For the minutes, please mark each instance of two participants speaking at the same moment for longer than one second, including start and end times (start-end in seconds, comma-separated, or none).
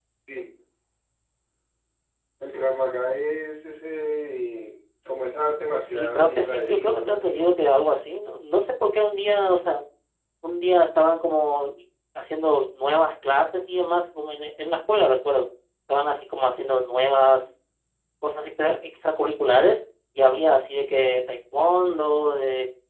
5.8-7.5